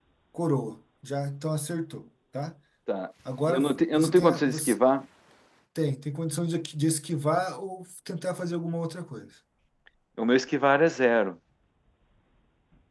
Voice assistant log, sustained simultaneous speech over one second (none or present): present